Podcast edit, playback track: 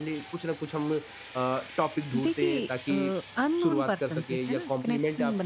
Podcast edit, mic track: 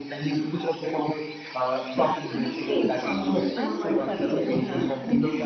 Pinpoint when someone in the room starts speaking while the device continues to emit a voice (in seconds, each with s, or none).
2.5 s